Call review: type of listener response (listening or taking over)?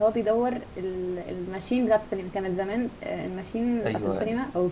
listening